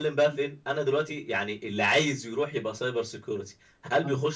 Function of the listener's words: listening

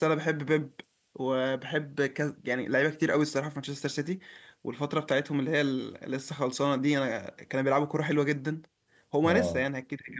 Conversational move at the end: listening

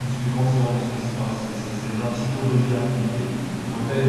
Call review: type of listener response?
taking over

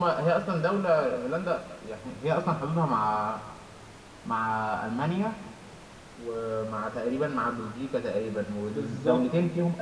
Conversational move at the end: listening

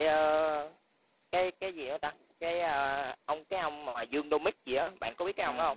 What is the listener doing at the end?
taking over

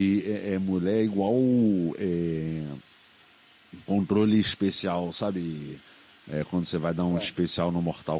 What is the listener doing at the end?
listening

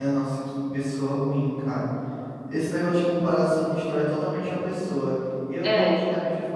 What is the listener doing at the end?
listening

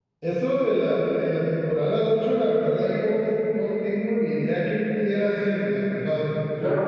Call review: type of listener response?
taking over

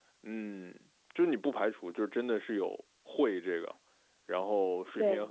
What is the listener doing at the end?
listening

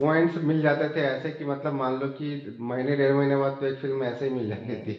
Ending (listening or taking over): taking over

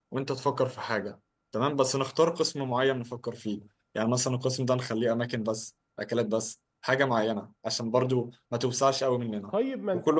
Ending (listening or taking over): taking over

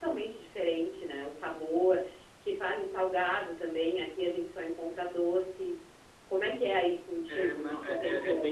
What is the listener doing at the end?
taking over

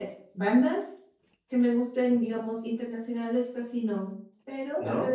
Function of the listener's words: listening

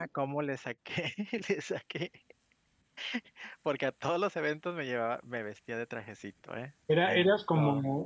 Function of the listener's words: taking over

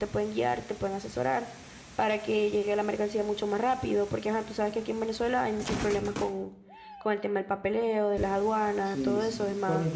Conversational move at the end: taking over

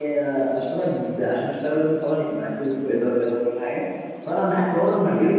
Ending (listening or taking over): listening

